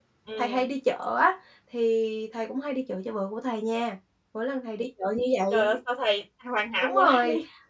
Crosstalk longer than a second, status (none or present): none